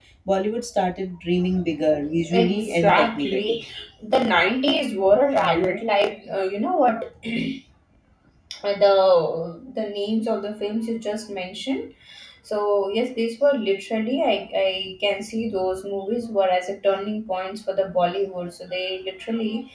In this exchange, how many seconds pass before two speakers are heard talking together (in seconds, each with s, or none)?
2.3 s